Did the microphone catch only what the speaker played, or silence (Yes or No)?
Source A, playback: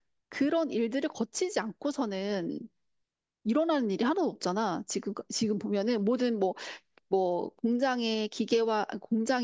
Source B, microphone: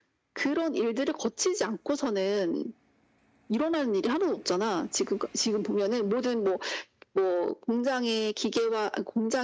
Yes